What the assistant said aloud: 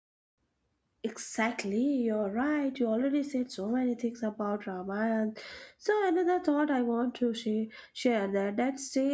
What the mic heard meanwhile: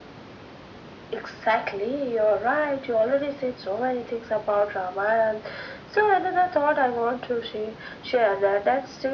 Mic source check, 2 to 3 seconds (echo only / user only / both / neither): echo only